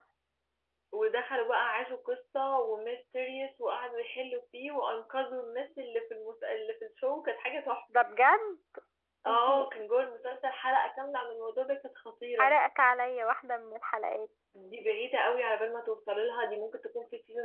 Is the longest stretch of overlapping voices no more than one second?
Yes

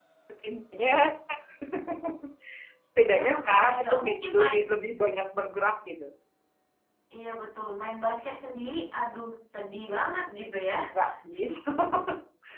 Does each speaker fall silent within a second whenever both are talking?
No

